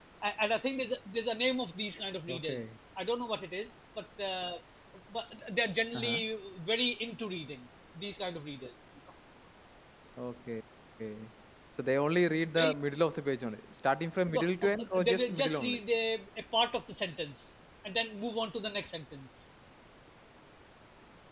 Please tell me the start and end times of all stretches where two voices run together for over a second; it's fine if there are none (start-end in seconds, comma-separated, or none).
14.3-15.8